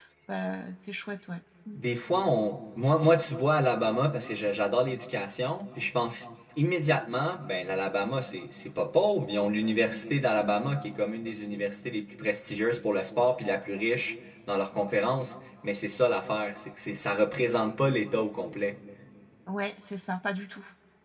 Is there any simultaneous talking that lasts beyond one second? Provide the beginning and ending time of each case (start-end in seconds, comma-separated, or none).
none